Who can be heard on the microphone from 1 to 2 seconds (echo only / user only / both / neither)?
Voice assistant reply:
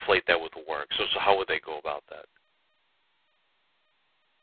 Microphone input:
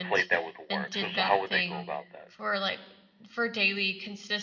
both